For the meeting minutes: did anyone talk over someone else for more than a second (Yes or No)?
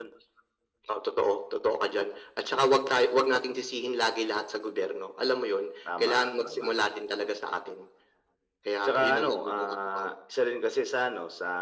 Yes